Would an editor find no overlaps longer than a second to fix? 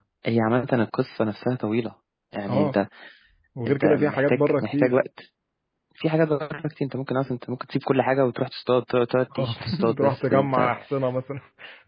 No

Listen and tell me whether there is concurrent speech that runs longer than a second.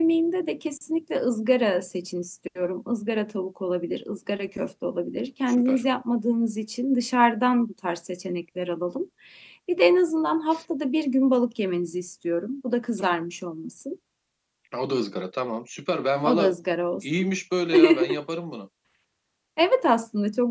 No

